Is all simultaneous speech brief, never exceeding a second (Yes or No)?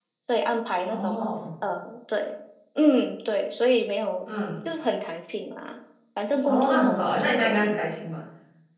No